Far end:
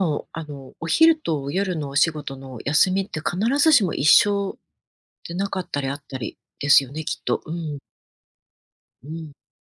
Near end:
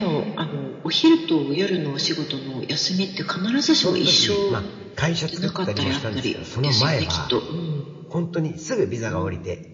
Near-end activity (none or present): present